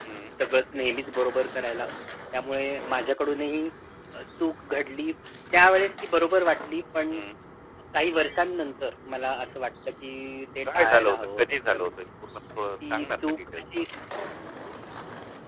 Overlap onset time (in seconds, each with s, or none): 10.7 s